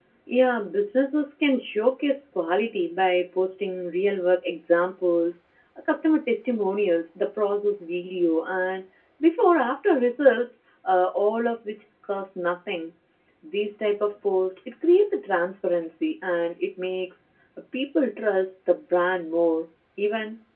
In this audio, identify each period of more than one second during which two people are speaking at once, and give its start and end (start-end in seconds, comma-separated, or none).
none